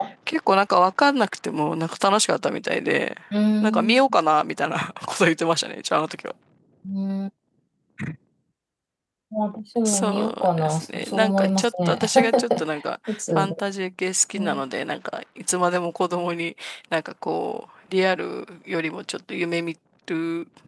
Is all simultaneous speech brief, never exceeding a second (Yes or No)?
No